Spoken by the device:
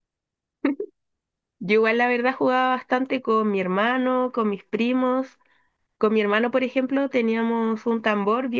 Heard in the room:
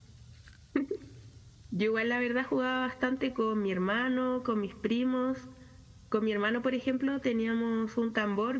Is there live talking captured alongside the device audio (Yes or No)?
No